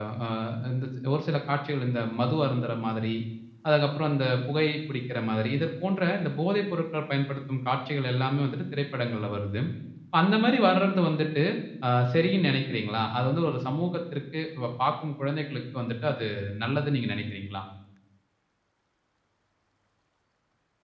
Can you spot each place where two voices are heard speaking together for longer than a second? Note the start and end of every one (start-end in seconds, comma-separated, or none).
none